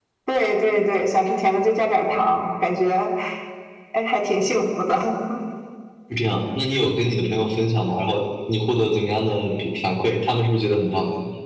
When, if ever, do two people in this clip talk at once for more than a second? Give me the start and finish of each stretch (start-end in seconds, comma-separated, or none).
none